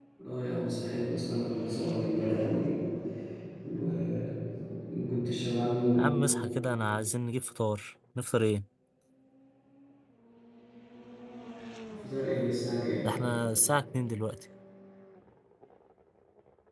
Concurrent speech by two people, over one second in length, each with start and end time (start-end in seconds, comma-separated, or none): none